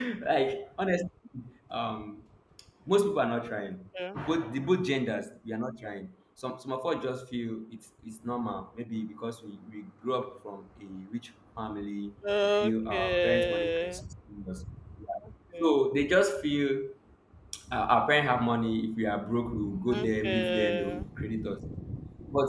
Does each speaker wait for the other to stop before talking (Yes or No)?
No